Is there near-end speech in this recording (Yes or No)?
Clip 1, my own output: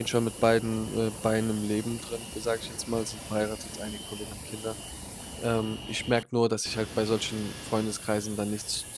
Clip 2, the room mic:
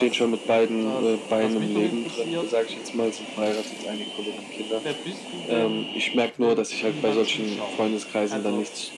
Yes